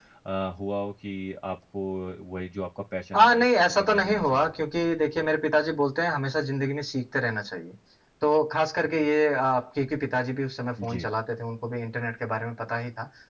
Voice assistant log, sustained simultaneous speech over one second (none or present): present